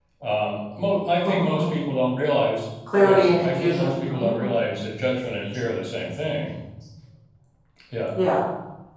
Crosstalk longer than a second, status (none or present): present